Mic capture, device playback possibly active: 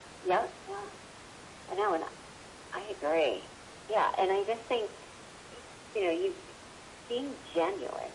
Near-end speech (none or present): none